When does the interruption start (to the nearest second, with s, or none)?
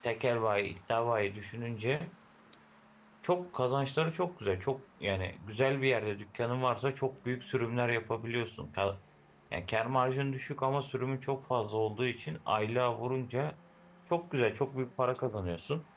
none